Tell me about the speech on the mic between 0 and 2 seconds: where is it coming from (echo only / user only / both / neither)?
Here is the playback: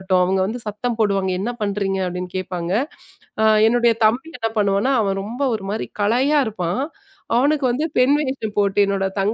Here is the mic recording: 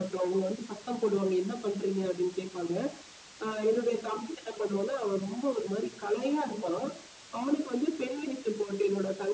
echo only